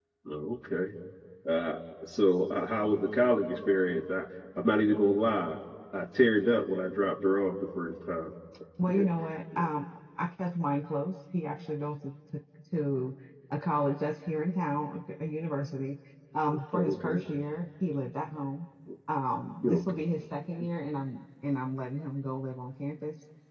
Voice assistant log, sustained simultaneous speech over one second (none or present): none